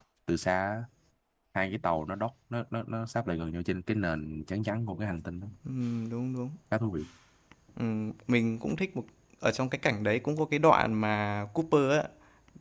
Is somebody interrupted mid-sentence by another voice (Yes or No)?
No